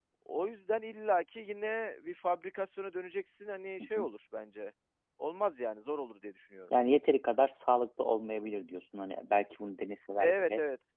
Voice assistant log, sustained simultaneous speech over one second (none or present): none